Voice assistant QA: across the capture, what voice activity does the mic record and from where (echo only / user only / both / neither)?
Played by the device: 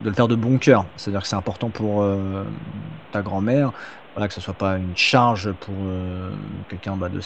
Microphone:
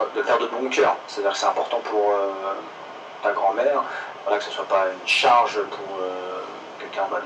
echo only